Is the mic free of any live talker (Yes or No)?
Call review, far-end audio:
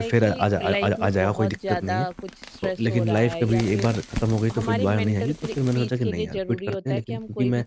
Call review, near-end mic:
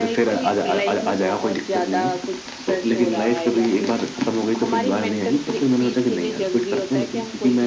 Yes